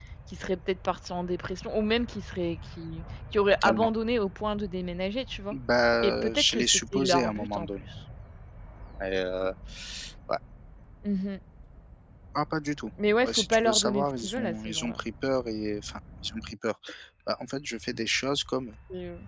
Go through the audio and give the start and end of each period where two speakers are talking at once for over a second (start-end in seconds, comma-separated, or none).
6.0-7.8, 13.2-15.0